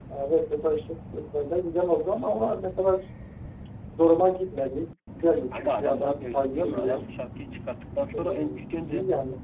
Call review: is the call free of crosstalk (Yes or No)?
No